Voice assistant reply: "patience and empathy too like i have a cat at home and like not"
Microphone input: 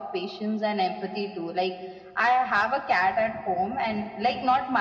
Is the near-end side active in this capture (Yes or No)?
No